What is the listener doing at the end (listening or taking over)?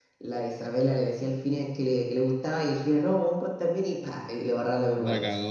taking over